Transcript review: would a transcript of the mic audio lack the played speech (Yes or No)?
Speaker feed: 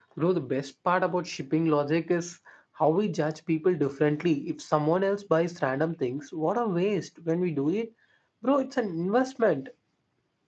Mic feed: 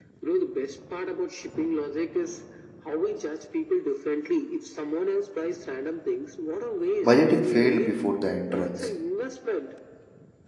No